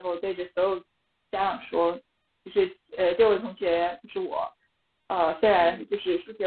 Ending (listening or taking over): listening